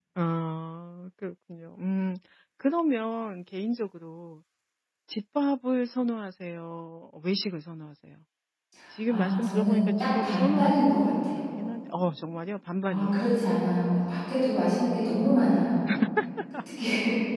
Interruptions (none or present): present